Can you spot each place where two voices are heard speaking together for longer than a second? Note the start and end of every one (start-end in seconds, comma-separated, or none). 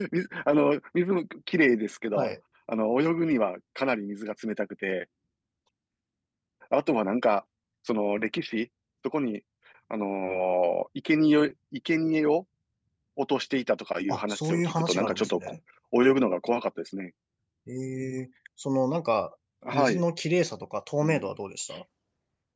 14.1-15.5